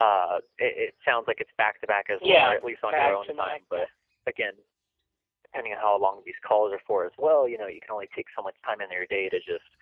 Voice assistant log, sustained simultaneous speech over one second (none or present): present